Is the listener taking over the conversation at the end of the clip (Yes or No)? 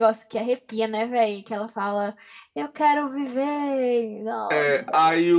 Yes